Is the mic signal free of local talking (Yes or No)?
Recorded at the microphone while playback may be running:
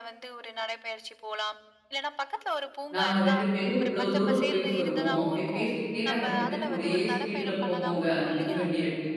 No